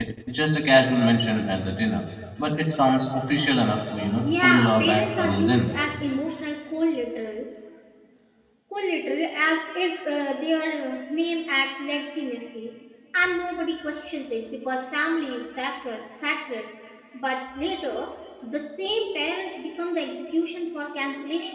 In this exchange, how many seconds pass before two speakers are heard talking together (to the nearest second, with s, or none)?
4 s